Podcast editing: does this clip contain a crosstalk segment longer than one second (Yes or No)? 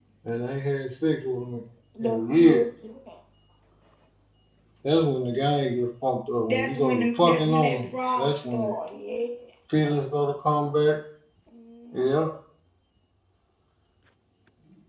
Yes